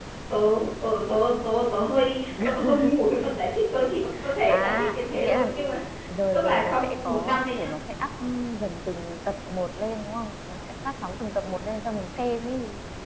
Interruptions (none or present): present